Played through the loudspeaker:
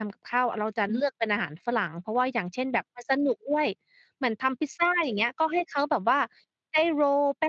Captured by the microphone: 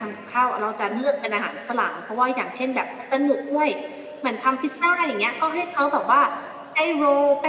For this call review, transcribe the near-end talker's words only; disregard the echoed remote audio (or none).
none